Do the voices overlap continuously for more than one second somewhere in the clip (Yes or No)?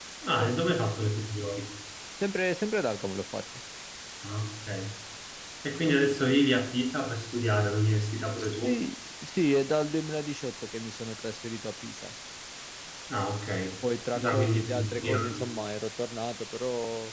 Yes